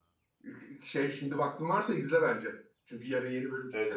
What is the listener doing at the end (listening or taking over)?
taking over